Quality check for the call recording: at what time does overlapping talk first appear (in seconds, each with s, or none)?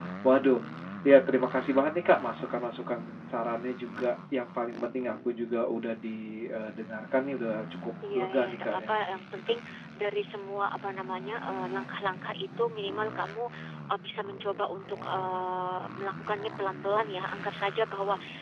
8.0 s